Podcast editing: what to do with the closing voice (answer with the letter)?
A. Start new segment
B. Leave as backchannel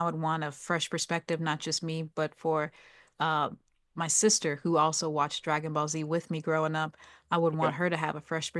B